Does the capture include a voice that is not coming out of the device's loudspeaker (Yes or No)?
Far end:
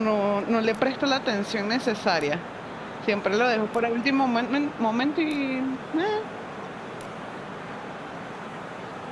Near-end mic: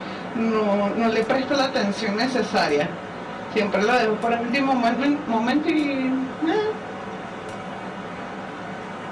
No